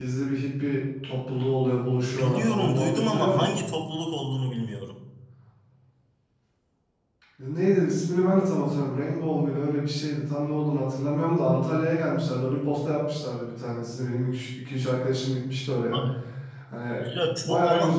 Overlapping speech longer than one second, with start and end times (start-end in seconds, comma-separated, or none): 2.0-3.6